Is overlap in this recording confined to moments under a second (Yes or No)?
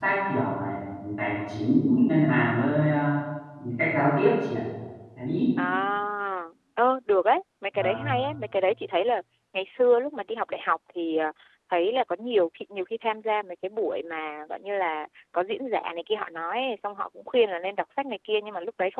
Yes